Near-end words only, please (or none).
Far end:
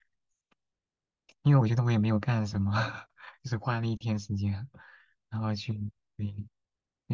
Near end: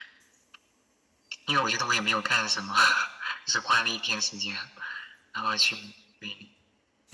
none